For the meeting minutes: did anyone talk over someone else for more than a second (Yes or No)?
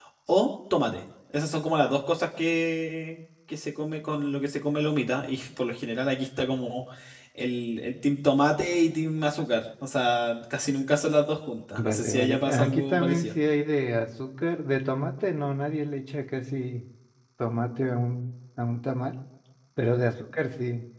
Yes